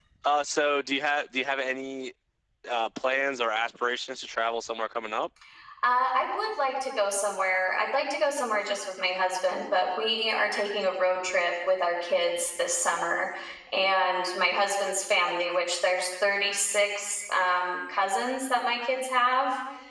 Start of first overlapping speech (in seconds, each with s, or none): none